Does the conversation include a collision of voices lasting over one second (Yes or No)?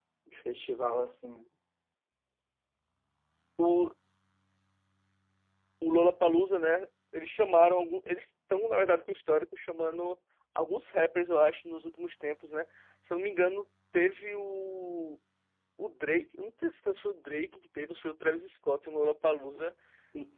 No